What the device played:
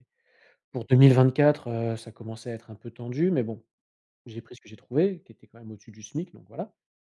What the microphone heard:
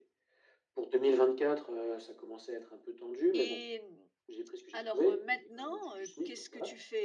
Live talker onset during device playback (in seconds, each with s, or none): 3.3 s